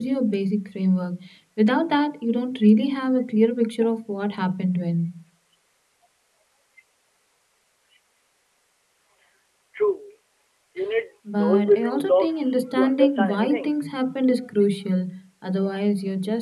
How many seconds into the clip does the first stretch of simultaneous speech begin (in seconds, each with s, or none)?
11.3 s